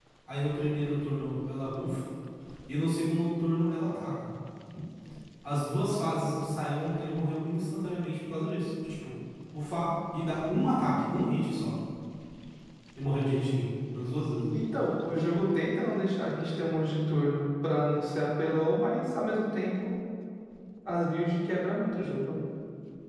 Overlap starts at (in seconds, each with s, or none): none